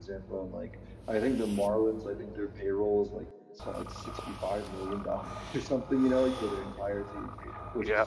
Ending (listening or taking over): listening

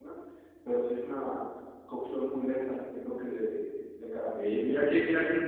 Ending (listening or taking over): taking over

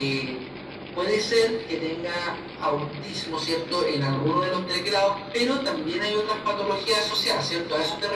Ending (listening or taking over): taking over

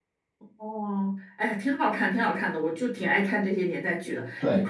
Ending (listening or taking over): listening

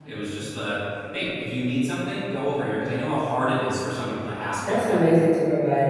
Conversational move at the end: taking over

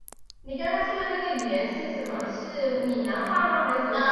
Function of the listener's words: taking over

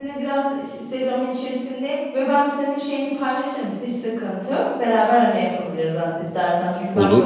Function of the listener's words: listening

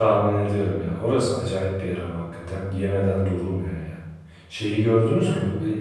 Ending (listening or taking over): taking over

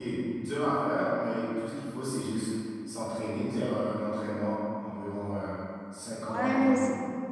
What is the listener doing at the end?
taking over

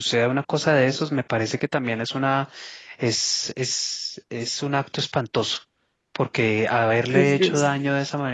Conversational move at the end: listening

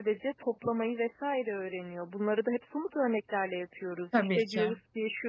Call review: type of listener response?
listening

